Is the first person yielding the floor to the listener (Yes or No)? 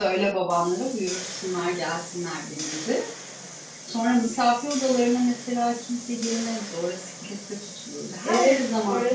Yes